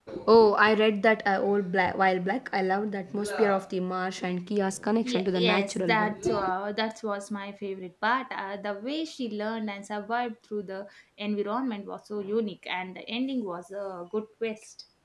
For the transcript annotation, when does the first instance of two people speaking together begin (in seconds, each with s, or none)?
5.0 s